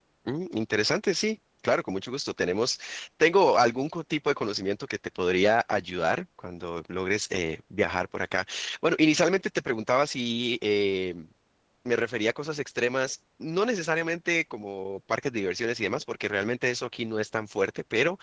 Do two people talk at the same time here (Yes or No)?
No